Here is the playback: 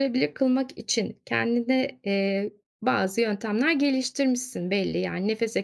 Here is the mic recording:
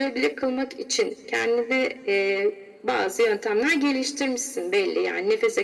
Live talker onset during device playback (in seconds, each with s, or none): none